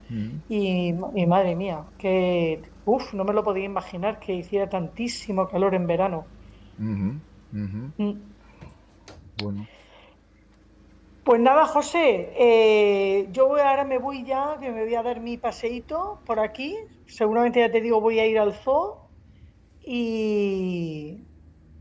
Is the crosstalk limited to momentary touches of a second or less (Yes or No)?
Yes